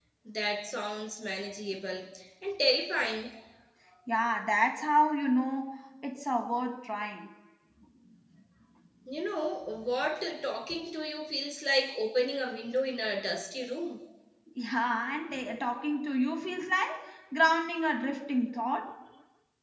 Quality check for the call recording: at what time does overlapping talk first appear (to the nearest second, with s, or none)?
none